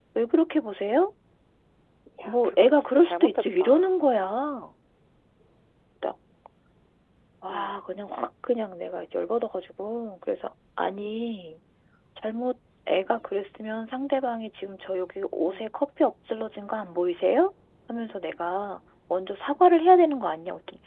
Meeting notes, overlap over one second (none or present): present